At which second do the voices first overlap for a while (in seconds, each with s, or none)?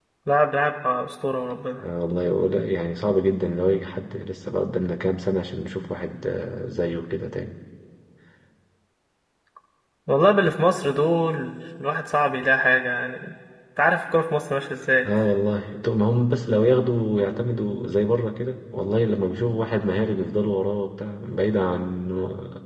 none